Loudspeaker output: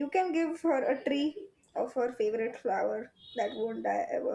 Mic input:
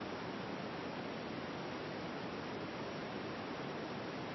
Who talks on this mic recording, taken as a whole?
neither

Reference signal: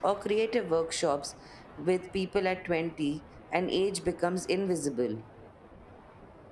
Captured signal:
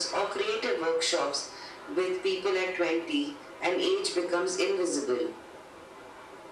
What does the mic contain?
echo only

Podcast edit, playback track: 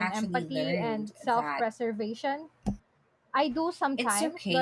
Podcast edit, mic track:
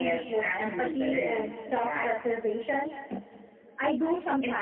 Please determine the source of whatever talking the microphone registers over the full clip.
echo only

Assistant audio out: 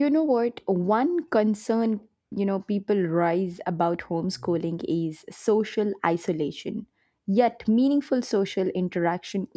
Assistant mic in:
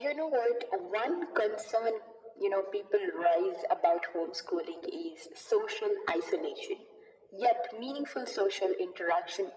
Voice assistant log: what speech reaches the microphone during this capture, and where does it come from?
echo only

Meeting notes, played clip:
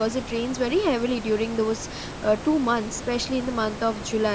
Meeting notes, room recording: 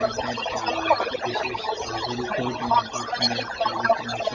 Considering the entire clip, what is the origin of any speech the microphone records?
both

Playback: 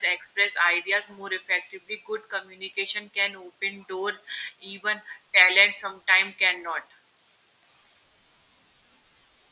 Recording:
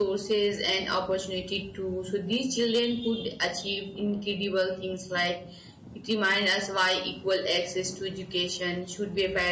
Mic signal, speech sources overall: user only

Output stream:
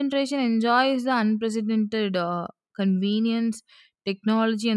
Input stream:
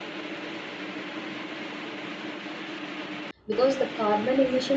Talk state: user only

